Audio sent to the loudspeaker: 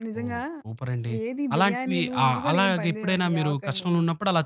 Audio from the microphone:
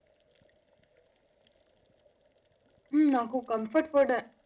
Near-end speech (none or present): present